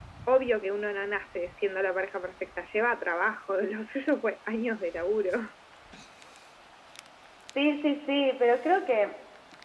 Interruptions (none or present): none